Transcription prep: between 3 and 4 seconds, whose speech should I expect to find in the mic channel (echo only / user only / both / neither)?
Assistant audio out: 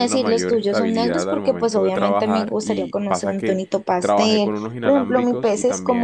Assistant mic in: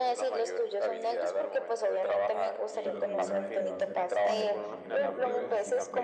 both